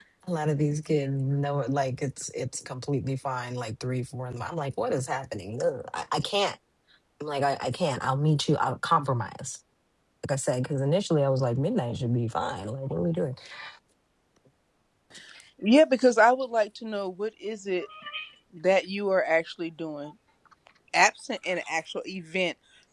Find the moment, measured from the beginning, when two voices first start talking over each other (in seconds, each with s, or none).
none